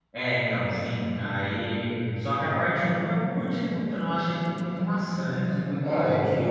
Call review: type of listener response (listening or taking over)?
taking over